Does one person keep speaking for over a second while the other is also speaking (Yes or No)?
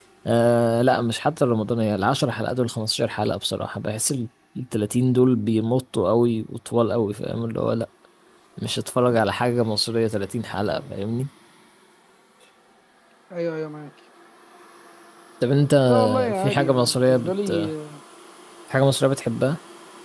Yes